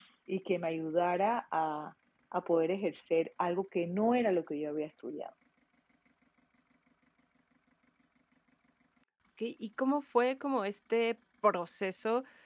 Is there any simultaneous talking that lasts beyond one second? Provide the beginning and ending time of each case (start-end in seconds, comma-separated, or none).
none